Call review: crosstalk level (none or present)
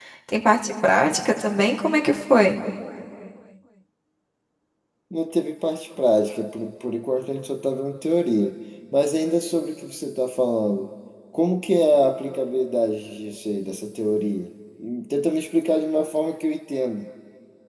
none